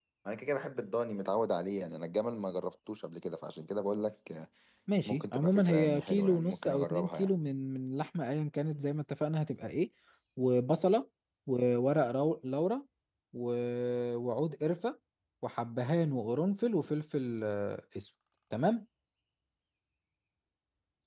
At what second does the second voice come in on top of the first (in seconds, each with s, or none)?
5.1 s